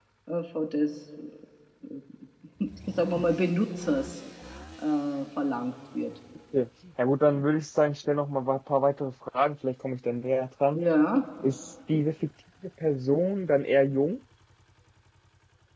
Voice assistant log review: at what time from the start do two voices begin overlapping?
none

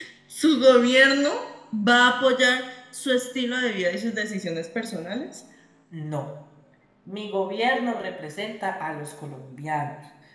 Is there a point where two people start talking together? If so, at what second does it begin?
none

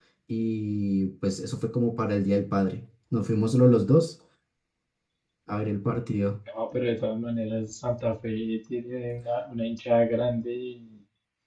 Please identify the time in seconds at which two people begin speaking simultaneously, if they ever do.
none

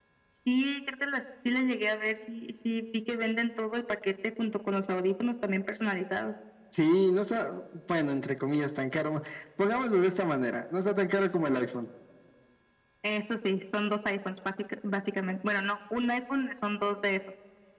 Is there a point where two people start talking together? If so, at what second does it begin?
none

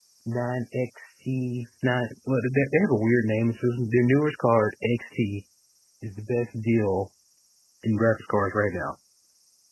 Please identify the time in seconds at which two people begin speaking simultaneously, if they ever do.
none

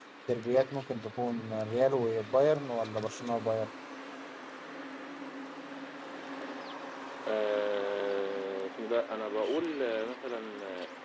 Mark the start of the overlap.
none

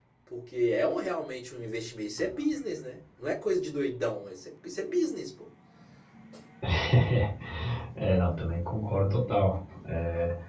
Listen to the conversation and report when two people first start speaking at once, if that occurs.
none

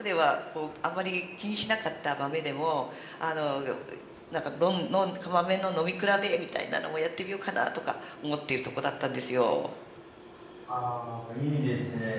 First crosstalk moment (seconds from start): none

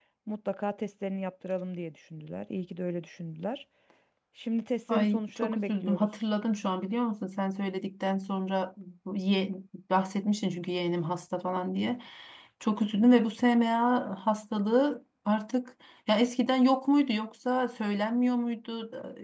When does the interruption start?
4.9 s

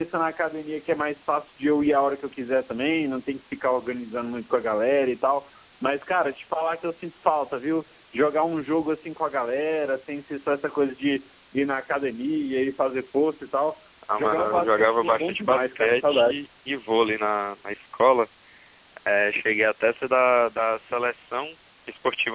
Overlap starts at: 14.1 s

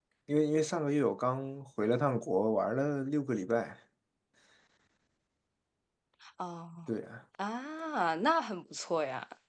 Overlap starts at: none

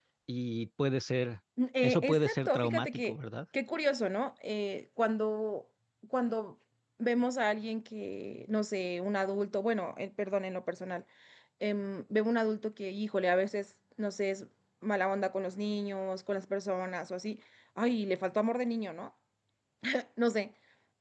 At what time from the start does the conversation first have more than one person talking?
1.8 s

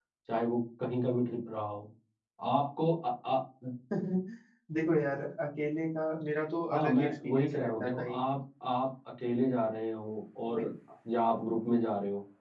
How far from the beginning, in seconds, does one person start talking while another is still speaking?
6.7 s

